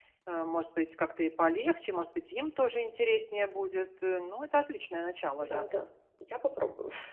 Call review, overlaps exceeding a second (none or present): none